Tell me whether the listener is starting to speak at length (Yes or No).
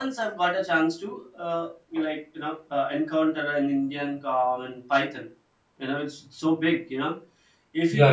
Yes